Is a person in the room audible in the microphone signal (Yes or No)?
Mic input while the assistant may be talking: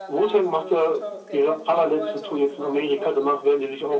Yes